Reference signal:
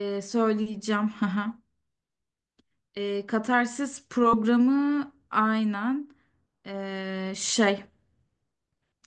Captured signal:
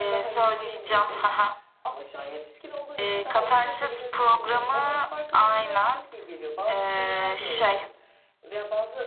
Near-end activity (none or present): present